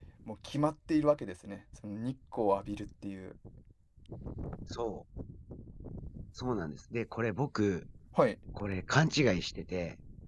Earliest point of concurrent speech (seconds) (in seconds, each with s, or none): none